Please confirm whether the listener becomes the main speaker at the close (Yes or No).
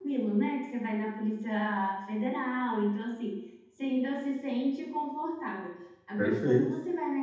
No